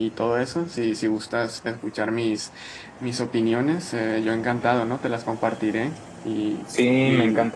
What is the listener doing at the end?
taking over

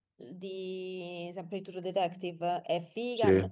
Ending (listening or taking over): listening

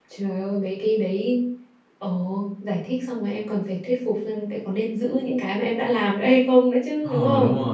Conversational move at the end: taking over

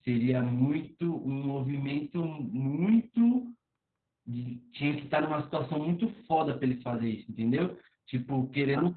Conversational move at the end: listening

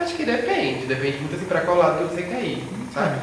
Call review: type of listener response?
listening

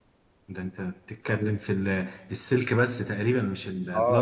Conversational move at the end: taking over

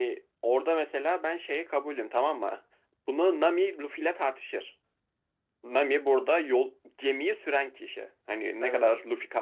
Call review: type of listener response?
listening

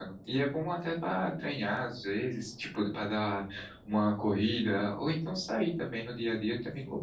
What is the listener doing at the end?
taking over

